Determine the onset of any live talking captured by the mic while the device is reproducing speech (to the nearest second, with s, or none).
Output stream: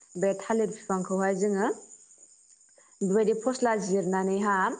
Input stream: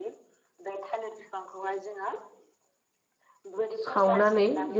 4 s